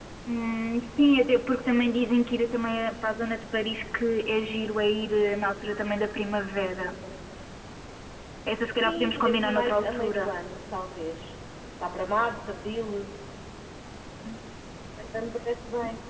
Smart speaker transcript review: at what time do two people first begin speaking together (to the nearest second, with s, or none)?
9 s